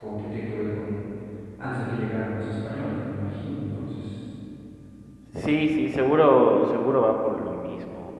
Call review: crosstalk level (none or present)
none